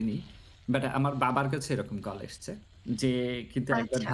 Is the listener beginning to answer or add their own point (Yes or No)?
No